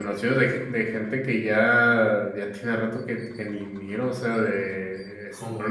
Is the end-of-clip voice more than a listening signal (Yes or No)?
No